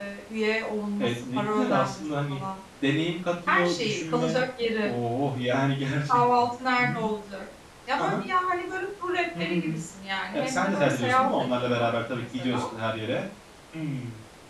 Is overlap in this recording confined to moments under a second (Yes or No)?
No